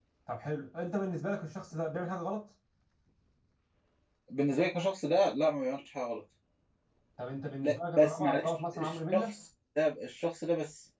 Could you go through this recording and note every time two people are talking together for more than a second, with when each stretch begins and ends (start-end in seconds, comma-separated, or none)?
7.6-9.3